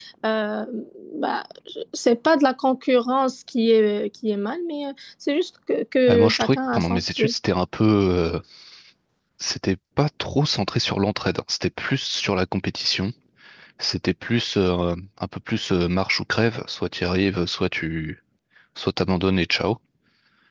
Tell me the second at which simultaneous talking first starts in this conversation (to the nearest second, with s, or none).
6 s